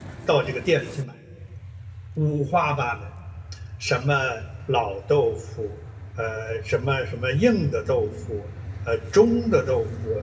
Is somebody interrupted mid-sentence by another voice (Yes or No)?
No